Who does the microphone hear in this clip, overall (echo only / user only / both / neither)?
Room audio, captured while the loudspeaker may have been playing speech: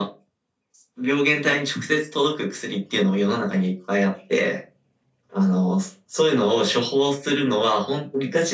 echo only